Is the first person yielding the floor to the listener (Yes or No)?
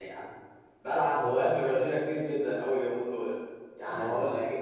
No